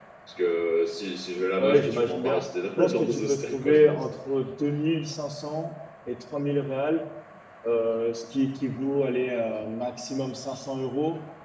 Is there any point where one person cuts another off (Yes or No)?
Yes